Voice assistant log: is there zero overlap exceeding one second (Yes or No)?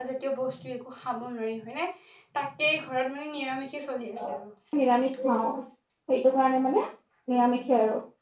Yes